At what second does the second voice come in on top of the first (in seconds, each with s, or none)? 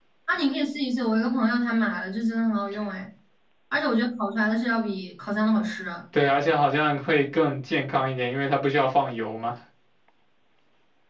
none